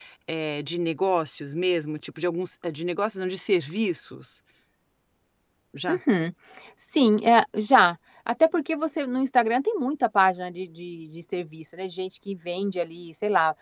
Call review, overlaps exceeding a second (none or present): none